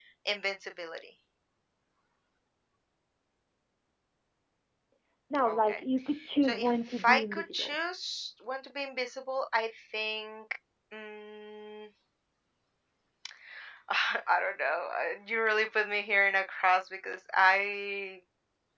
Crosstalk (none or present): present